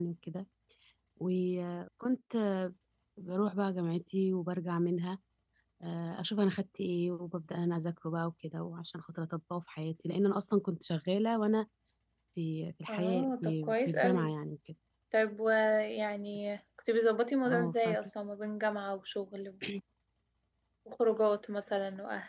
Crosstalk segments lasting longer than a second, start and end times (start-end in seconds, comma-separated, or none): 12.9-14.3